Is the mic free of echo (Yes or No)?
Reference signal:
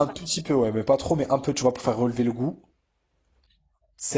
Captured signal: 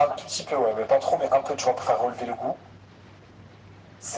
No